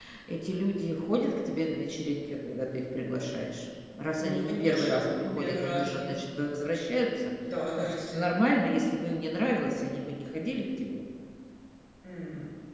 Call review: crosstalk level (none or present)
present